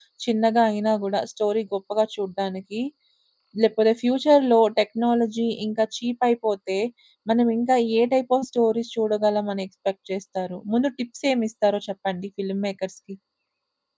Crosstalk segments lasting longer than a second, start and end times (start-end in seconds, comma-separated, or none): none